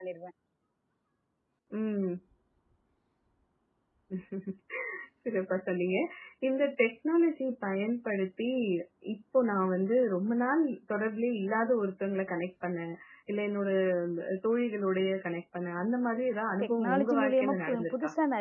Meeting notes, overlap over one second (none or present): present